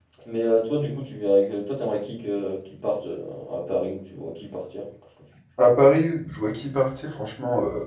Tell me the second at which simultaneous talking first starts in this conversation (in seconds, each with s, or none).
none